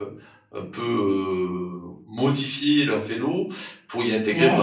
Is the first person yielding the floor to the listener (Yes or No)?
No